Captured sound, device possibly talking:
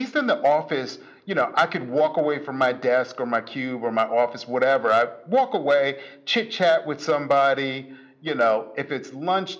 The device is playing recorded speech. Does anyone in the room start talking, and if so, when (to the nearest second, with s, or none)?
none